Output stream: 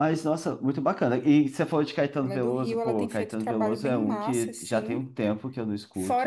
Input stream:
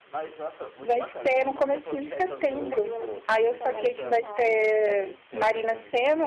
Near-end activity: present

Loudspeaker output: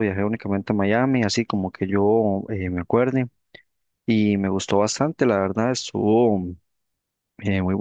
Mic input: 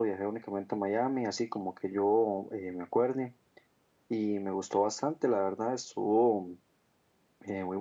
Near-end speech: none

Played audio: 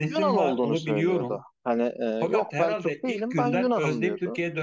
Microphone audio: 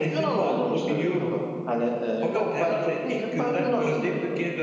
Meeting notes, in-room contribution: none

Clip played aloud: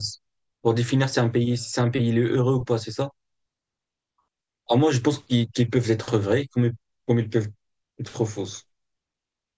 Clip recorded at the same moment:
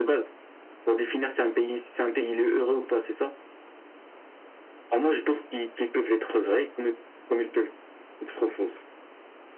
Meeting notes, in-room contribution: none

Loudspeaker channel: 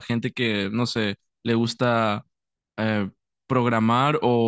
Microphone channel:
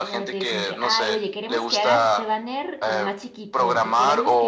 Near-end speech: present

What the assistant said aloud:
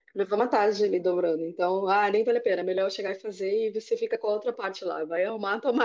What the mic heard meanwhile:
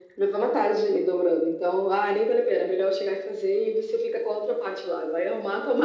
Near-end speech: none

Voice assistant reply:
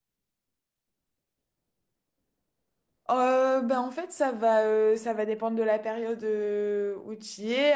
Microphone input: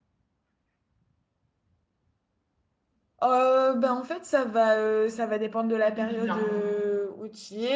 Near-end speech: present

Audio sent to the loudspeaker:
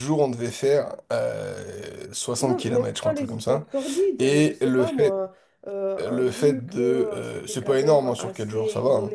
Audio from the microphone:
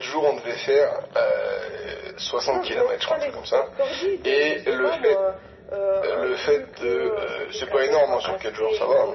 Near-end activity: none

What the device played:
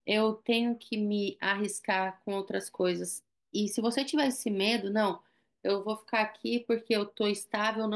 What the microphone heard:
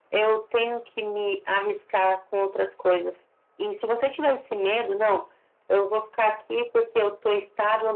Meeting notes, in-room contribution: none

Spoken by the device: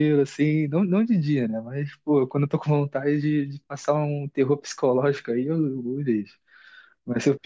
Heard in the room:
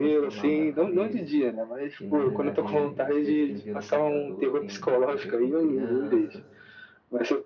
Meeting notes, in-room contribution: present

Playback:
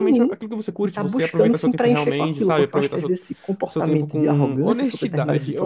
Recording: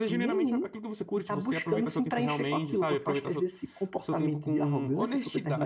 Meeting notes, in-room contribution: none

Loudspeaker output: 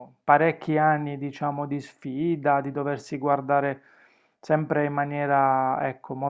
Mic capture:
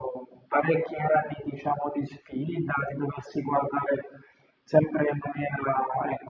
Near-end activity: none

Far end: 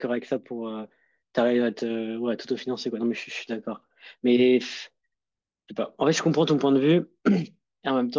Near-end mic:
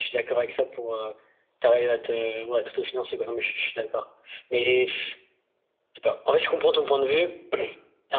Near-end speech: none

